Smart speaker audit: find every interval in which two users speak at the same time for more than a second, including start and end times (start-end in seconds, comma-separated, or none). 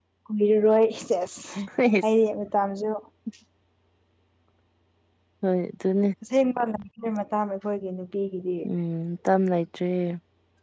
none